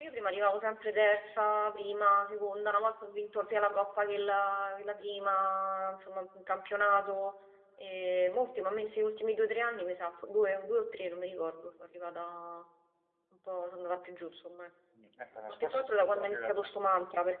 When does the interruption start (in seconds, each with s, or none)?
15.5 s